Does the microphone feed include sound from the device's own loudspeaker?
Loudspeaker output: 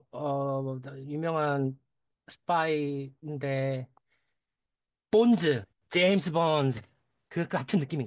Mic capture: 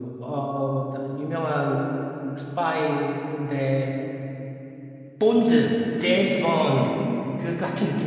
Yes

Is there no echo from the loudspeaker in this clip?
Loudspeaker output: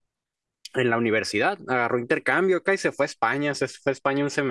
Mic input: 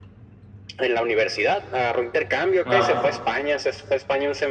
No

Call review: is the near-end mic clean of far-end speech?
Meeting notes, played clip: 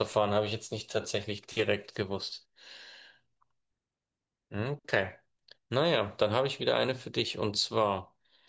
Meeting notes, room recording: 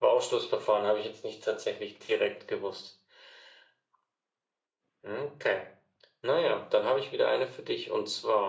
No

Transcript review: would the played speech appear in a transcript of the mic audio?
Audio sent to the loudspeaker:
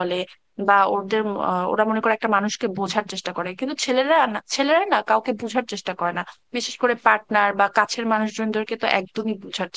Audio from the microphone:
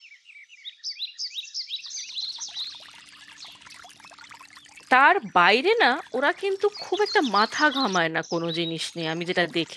No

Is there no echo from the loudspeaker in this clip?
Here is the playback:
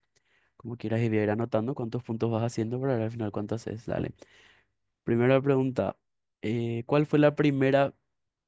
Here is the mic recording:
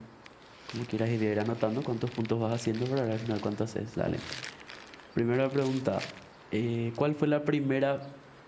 No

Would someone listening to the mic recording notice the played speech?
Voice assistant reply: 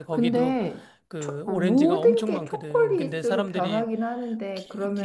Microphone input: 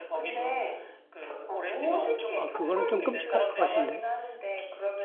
Yes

